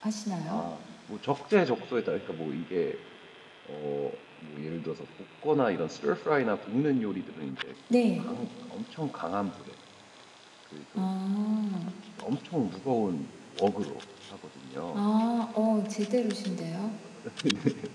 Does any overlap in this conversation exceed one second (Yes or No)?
No